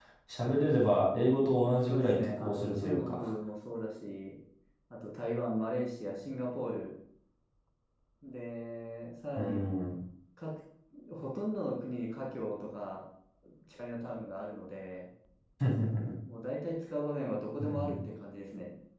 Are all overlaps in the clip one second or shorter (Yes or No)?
No